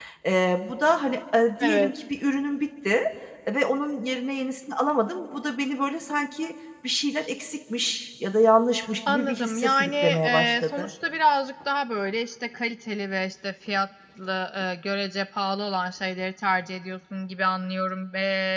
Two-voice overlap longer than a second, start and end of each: 9.1-10.9

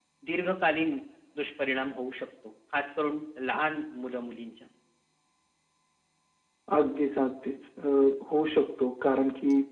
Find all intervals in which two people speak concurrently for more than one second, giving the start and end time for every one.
none

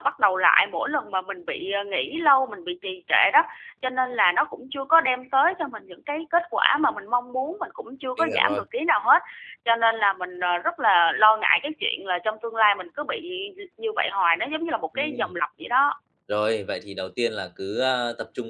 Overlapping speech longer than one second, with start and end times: none

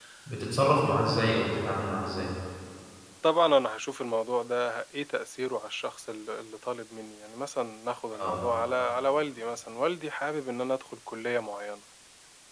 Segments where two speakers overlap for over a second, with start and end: none

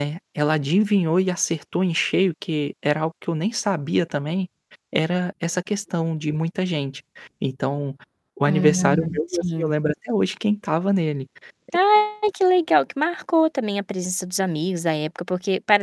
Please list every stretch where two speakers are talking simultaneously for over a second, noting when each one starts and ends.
8.5-9.7

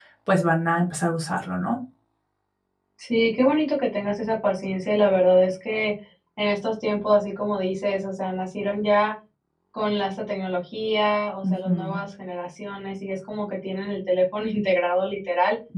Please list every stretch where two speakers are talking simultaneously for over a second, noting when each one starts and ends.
none

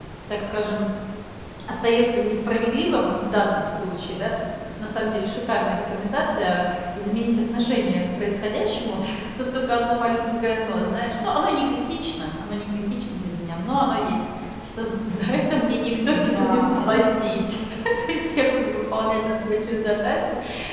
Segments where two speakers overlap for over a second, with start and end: 16.1-17.5

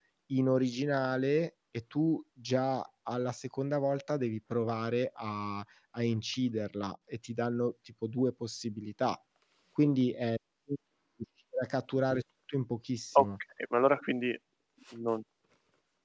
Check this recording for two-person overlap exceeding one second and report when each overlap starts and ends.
none

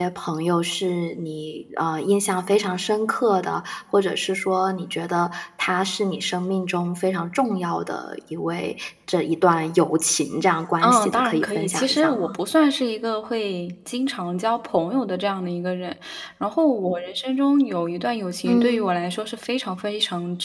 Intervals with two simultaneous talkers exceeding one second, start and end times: 10.8-12.4

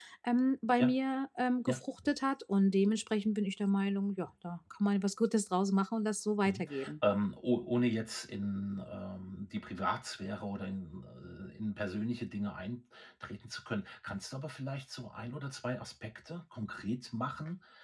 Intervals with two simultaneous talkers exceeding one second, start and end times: none

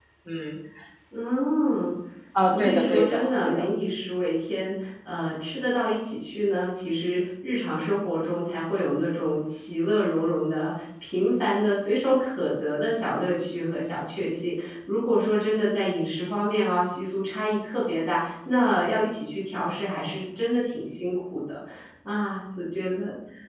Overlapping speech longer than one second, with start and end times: 2.4-3.7

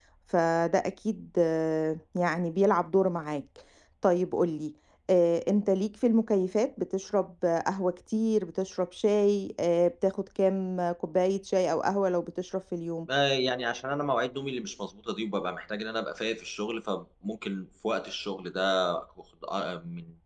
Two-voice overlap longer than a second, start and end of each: none

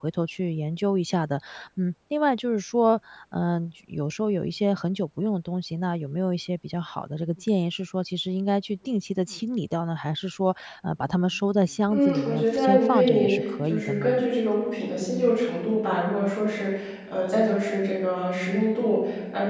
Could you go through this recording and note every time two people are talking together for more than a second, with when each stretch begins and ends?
11.9-14.2

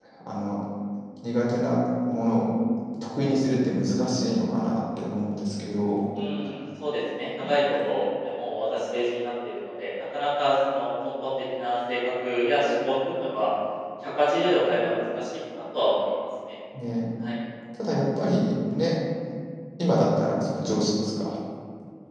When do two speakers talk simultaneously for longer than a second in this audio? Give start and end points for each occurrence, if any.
none

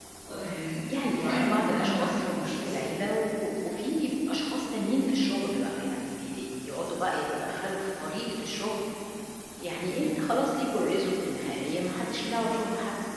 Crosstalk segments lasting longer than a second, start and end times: 1.2-2.8

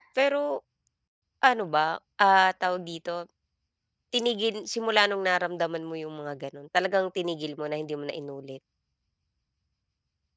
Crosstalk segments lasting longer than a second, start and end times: none

